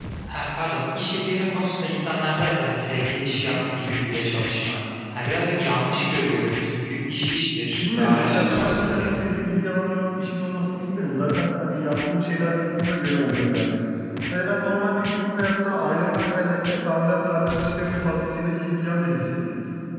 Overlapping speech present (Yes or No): Yes